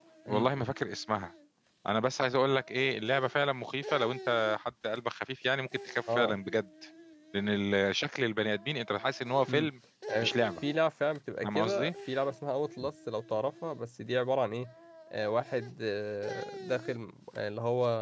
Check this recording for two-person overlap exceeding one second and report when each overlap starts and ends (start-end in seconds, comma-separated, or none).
none